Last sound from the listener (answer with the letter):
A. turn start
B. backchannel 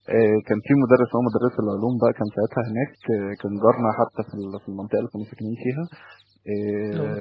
B